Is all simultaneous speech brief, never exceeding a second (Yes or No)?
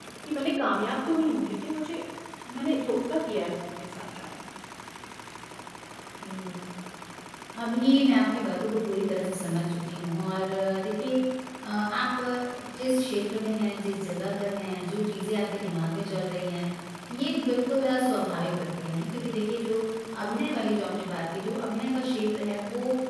Yes